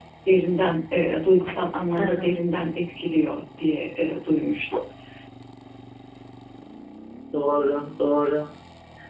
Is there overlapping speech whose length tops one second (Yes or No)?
No